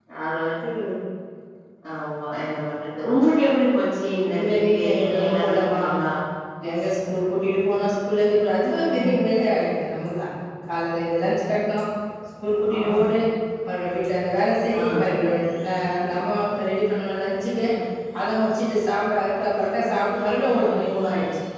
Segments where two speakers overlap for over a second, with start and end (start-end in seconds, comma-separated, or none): 4.3-5.8